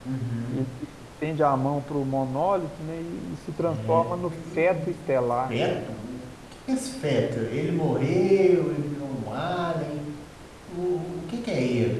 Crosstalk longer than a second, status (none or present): present